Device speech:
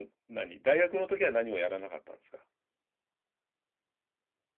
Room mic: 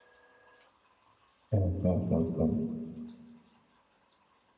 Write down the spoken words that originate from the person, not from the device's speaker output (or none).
うんうんうんうん。